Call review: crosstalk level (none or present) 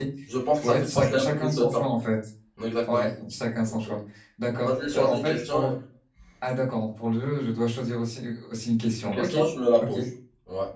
present